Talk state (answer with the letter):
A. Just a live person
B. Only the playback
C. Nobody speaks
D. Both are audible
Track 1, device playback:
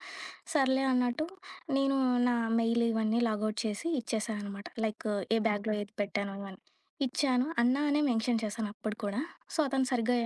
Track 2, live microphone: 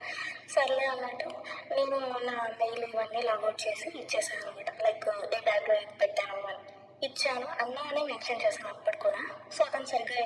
B